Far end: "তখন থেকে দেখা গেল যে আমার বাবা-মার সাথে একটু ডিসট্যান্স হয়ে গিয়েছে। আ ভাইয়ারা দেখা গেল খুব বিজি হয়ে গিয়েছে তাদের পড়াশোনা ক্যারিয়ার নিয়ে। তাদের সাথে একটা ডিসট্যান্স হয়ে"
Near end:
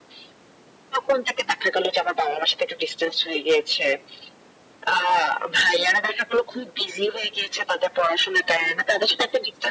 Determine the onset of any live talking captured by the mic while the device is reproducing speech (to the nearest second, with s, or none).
none